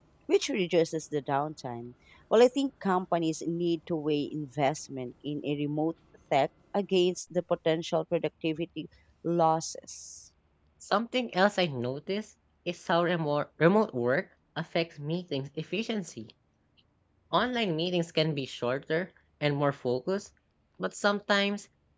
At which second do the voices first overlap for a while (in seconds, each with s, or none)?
none